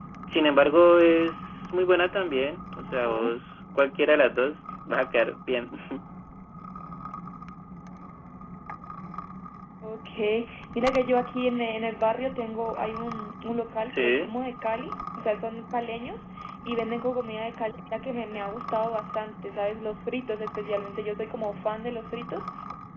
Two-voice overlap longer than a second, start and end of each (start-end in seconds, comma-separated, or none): none